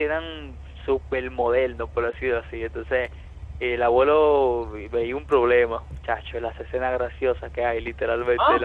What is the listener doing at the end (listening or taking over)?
taking over